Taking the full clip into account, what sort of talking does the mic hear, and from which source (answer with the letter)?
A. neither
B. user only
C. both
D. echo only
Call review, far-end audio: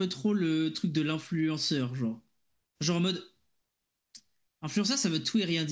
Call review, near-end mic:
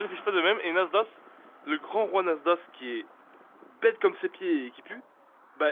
B